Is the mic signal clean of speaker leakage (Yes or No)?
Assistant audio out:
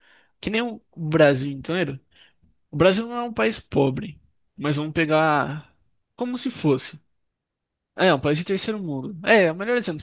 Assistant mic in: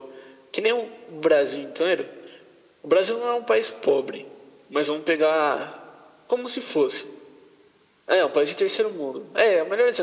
No